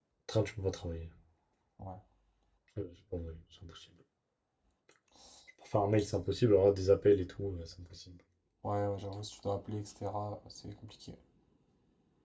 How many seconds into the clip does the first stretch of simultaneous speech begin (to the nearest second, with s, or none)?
none